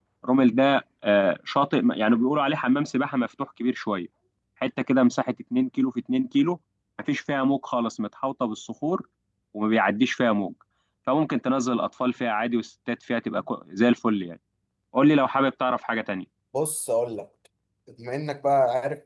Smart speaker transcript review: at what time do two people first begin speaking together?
none

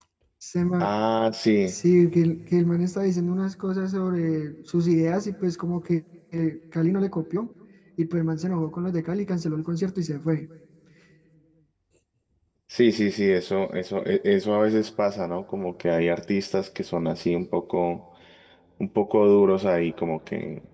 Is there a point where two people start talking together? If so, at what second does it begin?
none

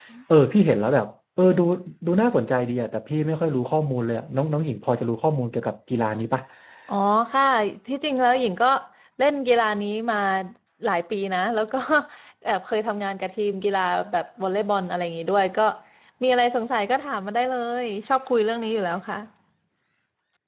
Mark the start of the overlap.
none

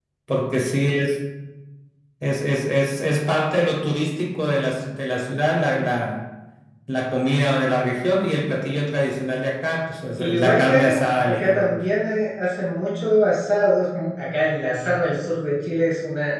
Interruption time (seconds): 10 s

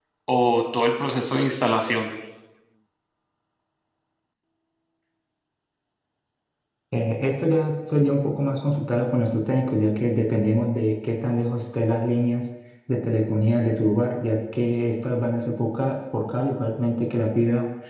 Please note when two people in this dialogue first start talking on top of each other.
none

